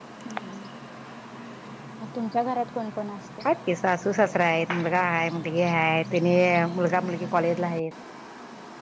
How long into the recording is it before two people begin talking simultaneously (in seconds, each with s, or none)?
none